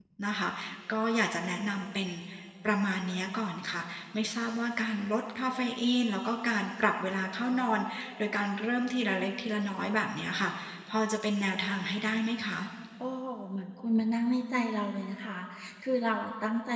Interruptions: none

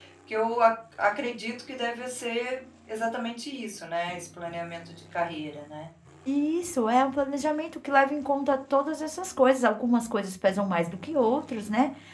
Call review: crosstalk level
none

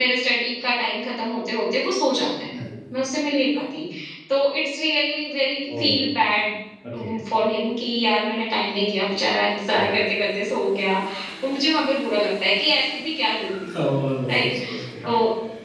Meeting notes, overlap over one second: none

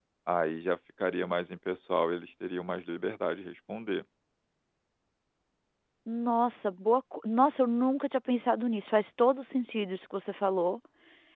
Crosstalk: none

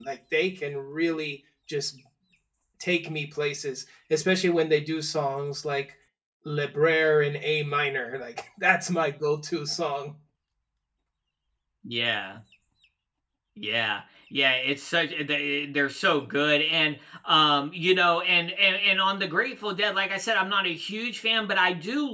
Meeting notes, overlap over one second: none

